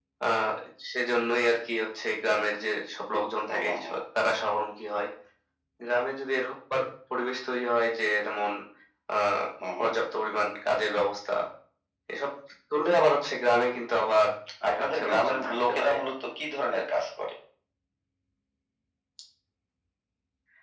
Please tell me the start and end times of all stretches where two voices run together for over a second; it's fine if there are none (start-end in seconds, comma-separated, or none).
14.7-15.9